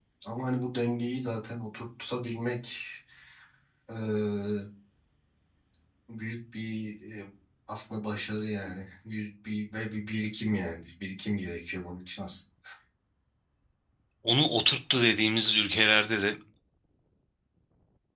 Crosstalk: none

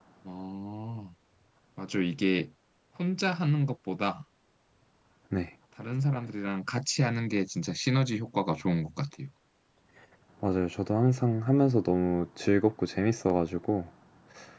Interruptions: none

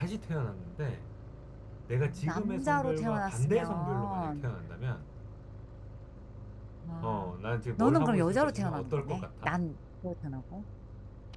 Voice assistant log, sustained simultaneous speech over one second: present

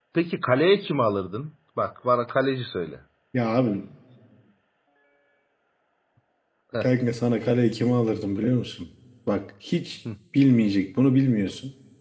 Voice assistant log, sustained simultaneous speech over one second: none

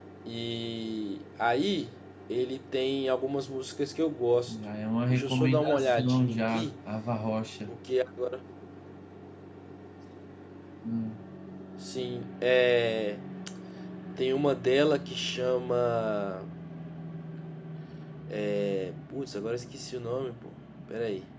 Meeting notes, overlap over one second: present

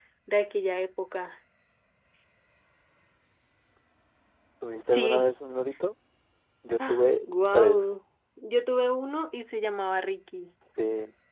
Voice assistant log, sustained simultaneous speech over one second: none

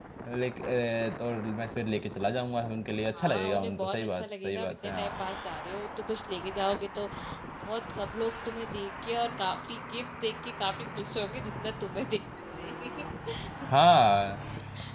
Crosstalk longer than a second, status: present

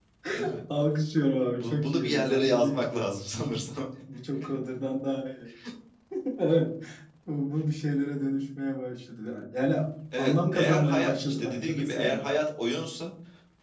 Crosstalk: present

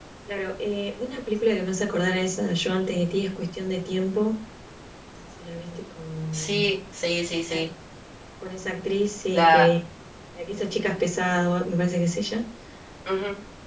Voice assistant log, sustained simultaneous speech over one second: none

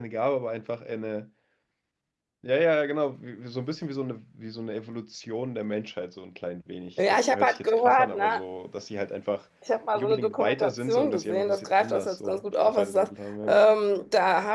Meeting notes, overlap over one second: present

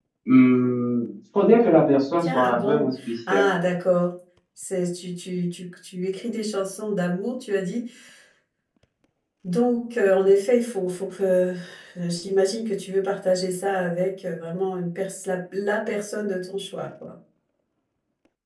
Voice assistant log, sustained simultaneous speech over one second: present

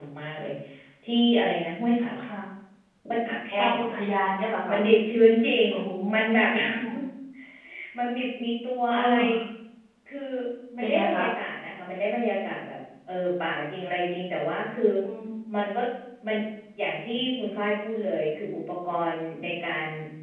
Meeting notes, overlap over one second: none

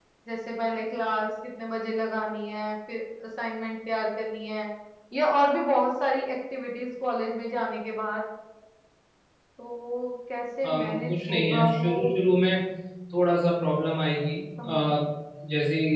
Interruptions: present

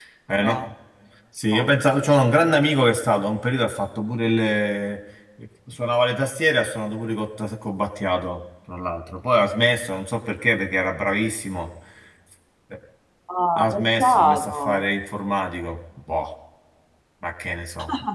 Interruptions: present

